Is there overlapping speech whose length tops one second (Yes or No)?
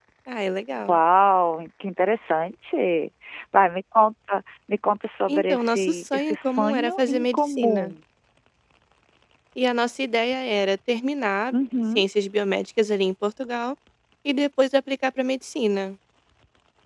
Yes